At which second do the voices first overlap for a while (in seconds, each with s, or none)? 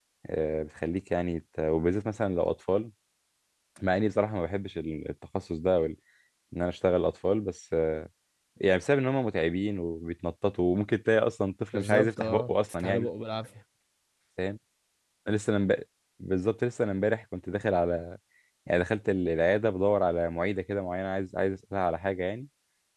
11.7 s